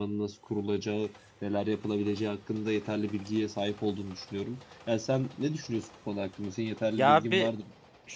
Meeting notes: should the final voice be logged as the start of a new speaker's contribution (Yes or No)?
Yes